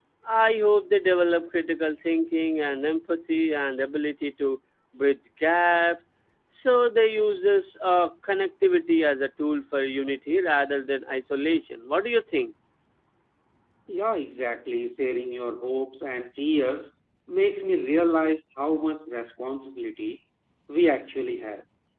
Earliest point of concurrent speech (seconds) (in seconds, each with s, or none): none